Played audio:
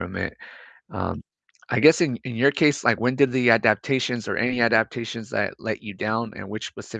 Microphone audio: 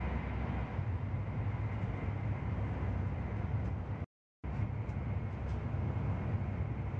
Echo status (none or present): none